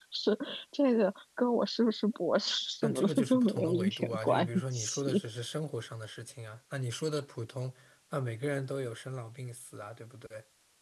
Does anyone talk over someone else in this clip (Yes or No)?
Yes